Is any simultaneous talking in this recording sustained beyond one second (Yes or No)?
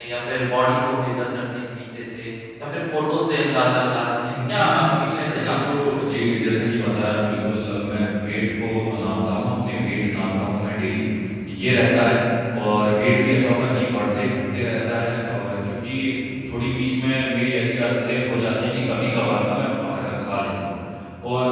Yes